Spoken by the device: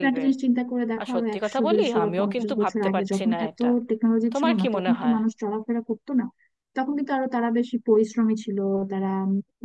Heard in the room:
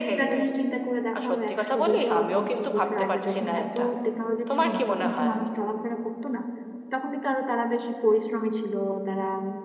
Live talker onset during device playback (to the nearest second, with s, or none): none